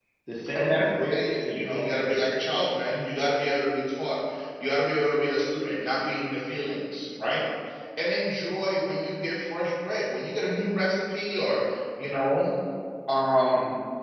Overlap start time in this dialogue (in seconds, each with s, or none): 0.5 s